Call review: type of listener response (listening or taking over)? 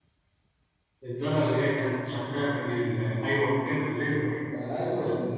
taking over